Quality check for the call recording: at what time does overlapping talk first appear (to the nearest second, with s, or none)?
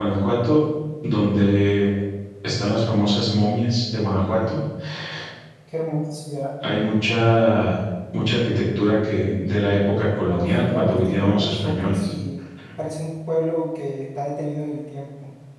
10 s